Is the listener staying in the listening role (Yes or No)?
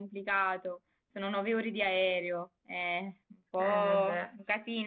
Yes